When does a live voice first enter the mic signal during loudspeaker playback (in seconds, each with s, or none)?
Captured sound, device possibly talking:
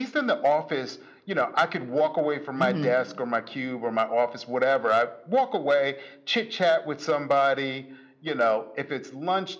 2.5 s